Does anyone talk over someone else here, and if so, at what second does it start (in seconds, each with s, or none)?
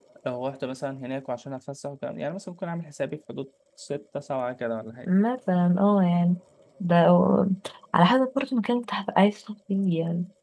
none